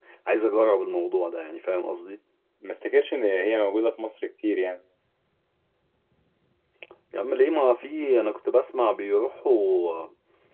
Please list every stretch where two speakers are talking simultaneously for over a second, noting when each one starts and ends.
none

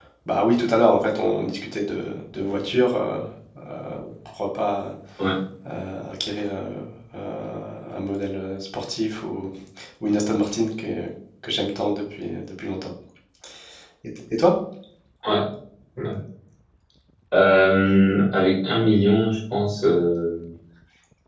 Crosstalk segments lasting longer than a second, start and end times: none

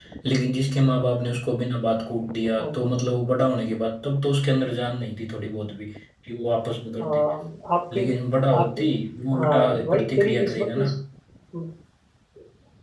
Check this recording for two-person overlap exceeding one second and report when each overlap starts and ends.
9.3-10.9

